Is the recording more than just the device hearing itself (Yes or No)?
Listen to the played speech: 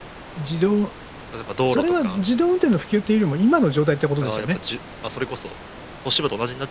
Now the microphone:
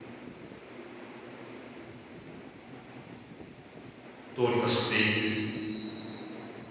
Yes